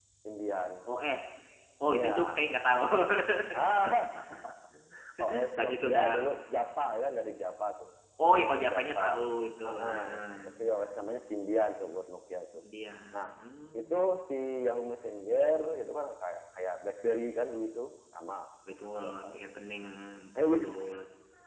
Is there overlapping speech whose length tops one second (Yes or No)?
Yes